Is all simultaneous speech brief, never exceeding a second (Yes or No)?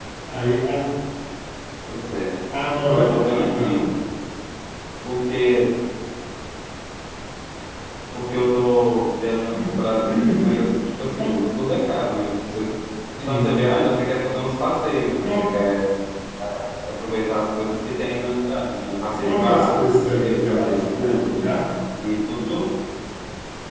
No